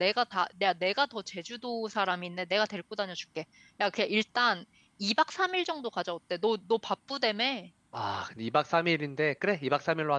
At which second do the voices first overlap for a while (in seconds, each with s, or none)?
none